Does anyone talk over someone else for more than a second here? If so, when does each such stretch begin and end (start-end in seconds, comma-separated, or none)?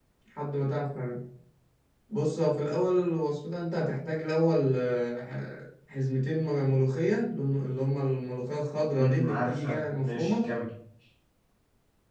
9.0-10.5